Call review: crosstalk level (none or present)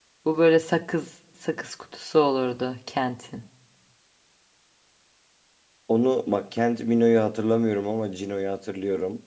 none